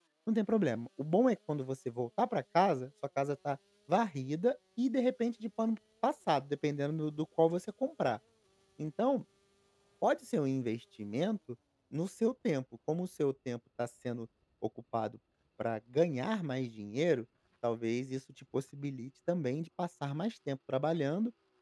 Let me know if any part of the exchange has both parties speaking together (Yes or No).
No